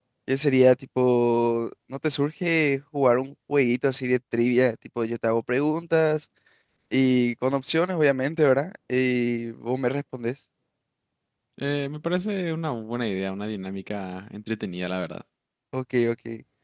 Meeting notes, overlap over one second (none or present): none